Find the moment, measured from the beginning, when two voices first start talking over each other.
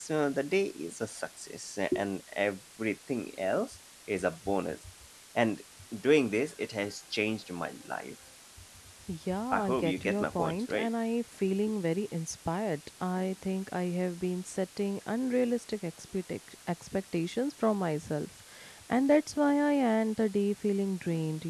10 s

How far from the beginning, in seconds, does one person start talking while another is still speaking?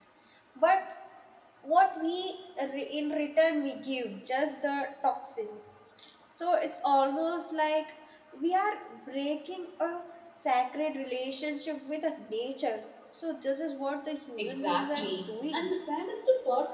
14 s

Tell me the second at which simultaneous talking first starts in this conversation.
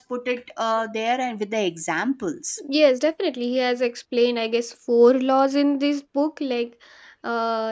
none

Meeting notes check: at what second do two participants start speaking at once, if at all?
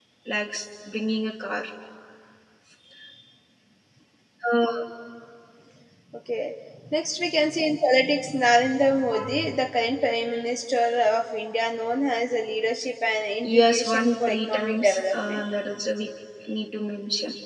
13 s

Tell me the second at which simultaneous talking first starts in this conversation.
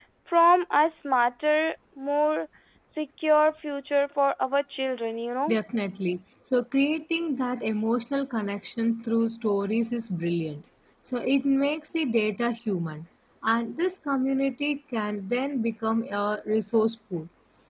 none

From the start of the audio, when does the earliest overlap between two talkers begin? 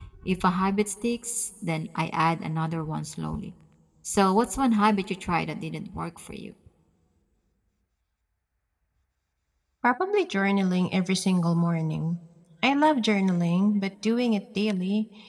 none

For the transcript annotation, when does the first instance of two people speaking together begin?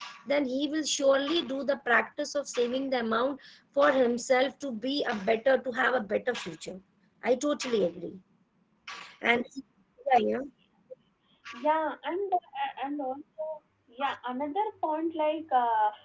none

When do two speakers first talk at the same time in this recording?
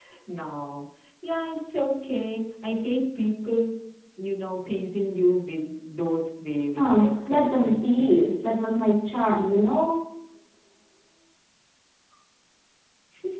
7 s

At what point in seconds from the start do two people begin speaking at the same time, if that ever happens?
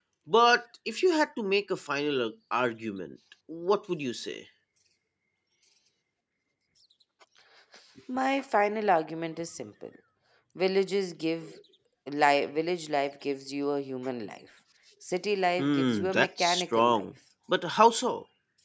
16 s

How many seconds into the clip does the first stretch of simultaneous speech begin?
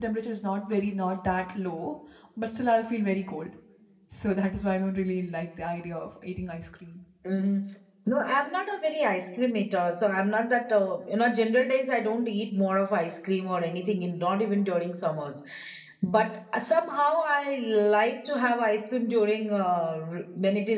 none

